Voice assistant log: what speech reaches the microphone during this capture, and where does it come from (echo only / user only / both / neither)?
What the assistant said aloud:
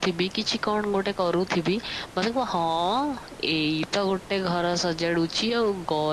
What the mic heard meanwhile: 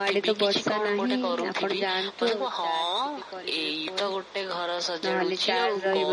both